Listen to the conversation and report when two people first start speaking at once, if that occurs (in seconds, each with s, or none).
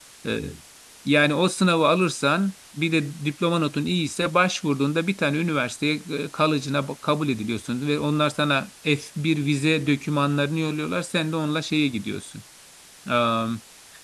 none